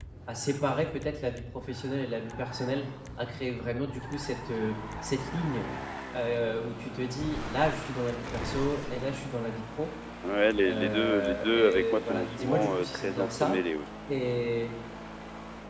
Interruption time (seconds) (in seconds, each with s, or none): 10.6 s